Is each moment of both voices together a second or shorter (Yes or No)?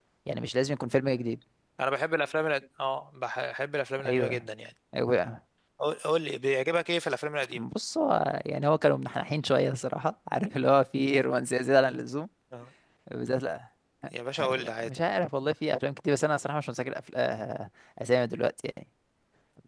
Yes